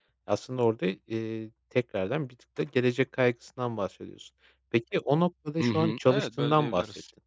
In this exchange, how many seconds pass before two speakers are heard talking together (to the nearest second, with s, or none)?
6 s